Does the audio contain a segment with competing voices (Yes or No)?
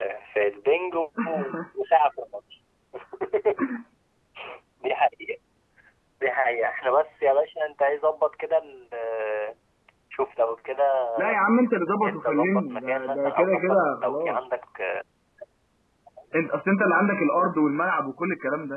Yes